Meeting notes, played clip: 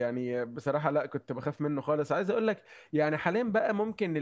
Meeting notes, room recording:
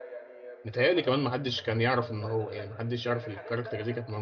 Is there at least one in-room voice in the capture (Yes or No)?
Yes